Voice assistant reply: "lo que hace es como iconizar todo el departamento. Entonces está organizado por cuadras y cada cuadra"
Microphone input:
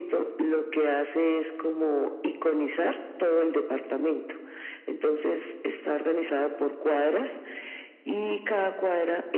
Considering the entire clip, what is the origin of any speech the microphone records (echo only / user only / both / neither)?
echo only